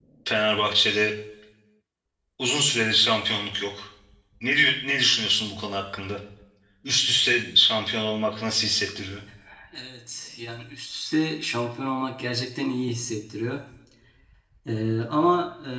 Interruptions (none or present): none